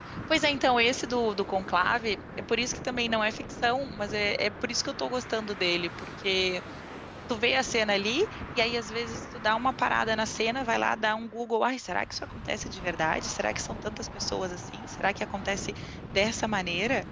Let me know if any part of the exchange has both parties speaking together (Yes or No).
No